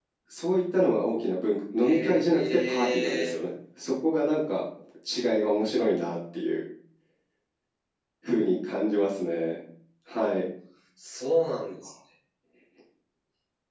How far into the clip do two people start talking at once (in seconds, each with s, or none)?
1.8 s